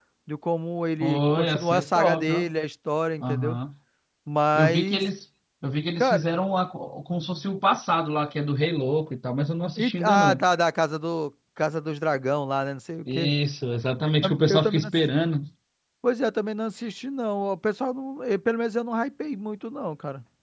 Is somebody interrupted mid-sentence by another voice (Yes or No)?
Yes